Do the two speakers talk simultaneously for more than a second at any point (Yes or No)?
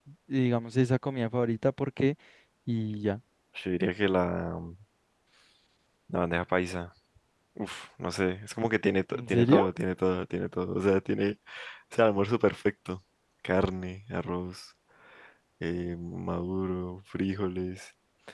No